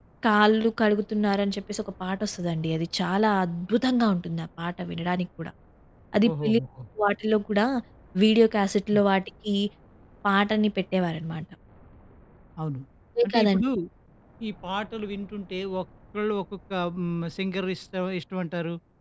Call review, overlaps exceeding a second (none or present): none